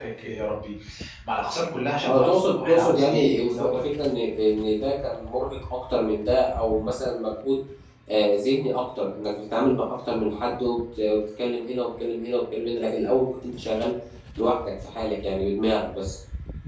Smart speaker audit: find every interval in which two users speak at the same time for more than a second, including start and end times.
2.0-3.8

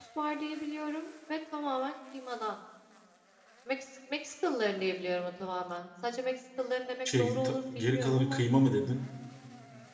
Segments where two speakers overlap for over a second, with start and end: 7.0-8.4

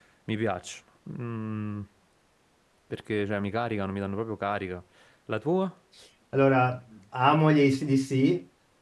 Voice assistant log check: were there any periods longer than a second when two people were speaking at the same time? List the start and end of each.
none

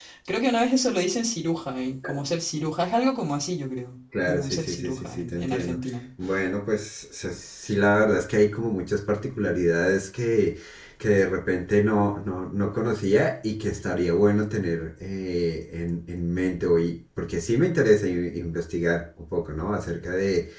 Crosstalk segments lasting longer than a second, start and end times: 4.3-5.8

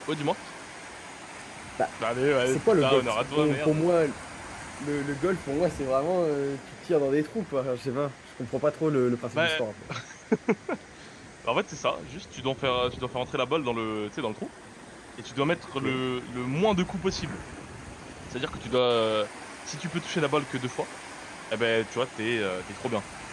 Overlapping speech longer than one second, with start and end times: 2.4-3.8

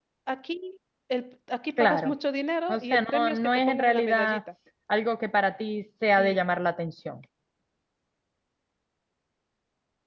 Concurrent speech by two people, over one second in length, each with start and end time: 2.7-4.4

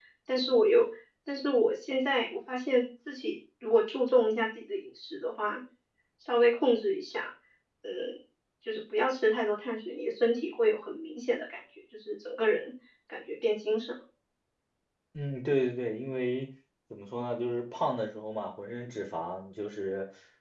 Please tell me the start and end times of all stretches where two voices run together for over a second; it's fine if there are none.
none

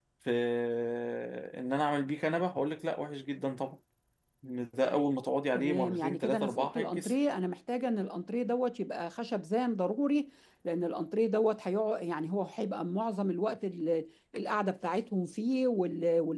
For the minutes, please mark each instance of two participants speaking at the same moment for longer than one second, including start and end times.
5.5-7.1

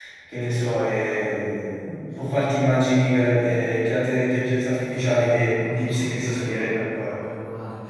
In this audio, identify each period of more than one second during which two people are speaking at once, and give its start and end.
5.0-7.2

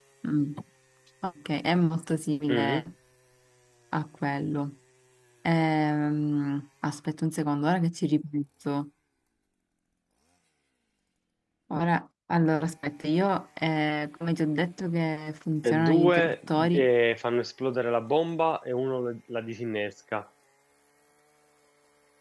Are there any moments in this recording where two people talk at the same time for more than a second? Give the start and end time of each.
15.6-16.9

